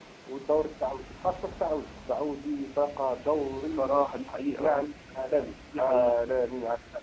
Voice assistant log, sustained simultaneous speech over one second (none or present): none